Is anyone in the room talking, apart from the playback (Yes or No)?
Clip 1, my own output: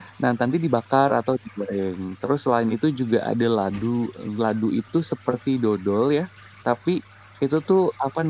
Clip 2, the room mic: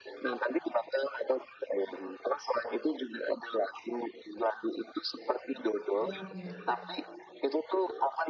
Yes